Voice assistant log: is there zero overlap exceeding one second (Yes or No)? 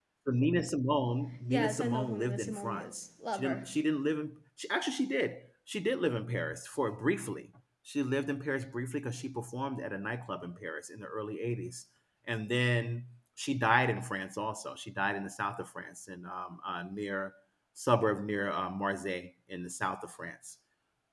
No